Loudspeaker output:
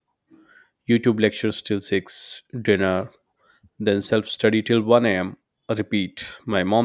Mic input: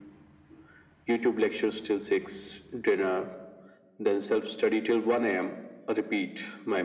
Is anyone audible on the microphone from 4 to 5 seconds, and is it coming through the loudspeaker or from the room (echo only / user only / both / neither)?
echo only